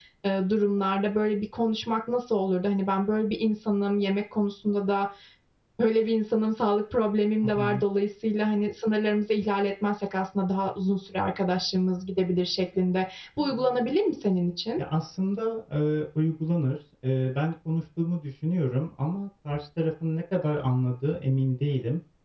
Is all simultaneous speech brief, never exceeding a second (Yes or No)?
Yes